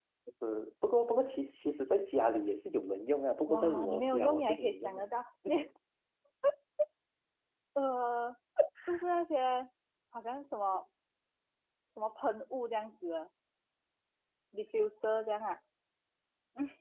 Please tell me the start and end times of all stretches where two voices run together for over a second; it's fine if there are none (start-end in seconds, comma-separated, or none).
3.5-5.1